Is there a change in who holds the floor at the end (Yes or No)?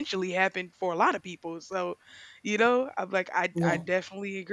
No